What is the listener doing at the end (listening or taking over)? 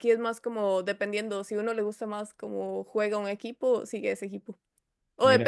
listening